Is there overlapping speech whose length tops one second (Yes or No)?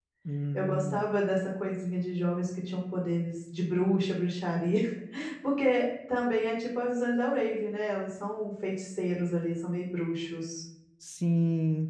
No